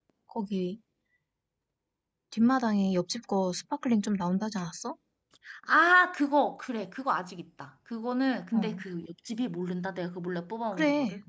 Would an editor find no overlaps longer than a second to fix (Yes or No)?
Yes